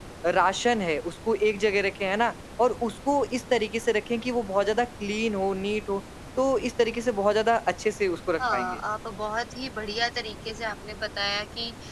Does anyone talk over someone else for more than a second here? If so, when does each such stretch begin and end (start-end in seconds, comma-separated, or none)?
none